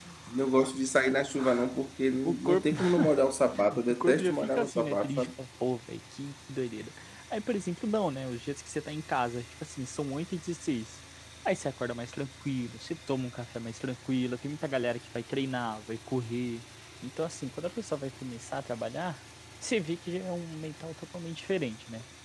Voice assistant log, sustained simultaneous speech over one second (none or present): present